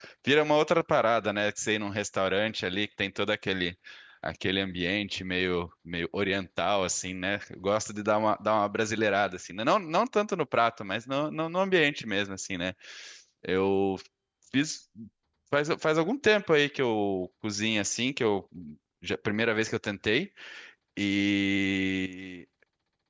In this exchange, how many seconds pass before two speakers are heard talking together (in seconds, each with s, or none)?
none